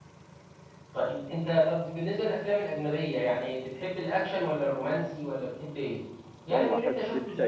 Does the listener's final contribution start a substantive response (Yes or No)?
Yes